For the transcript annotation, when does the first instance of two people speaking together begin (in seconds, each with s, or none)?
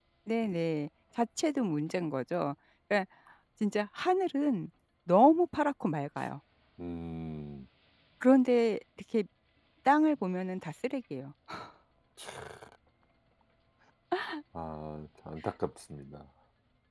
none